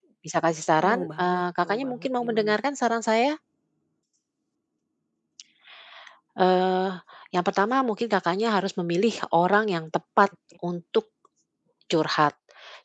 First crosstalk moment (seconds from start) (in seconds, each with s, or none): 0.8 s